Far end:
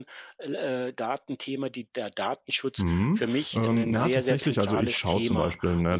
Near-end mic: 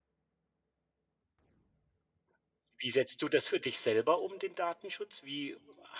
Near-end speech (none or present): present